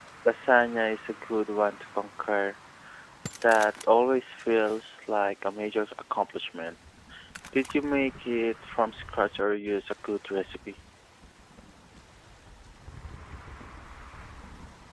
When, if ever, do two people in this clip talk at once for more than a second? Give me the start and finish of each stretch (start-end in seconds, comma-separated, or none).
none